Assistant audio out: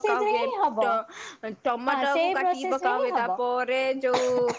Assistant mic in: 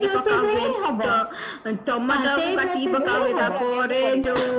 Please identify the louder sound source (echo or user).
echo